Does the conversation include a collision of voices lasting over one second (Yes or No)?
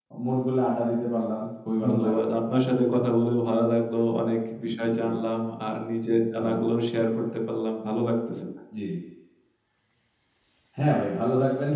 No